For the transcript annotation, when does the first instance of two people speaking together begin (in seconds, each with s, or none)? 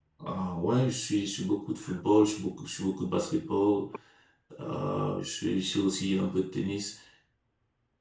none